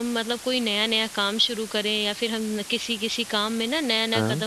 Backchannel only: Yes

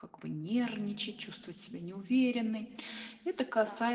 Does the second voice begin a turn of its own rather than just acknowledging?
No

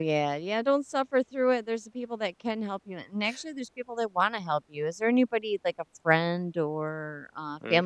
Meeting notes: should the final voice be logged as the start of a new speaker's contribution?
Yes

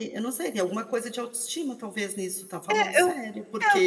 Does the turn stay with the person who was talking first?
No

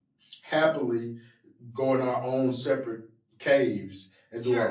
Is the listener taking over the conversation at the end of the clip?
Yes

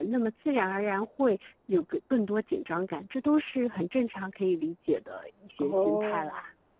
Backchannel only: No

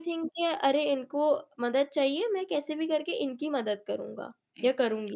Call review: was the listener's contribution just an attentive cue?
No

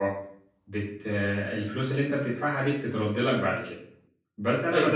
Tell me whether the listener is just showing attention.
No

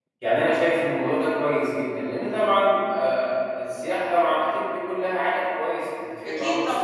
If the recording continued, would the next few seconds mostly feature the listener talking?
Yes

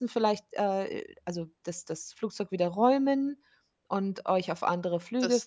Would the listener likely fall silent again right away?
No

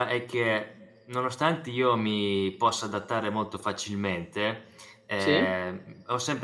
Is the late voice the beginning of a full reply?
No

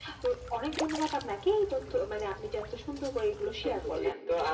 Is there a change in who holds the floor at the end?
Yes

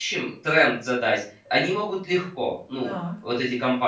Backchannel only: Yes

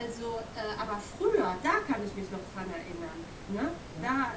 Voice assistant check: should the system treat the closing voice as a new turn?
No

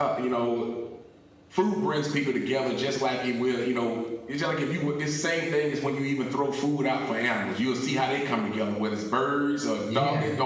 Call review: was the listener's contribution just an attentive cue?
Yes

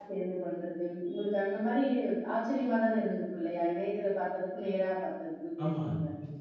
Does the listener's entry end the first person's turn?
Yes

